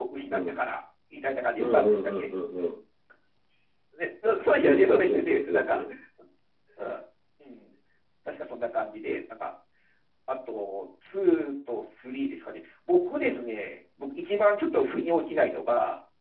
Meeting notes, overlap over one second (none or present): present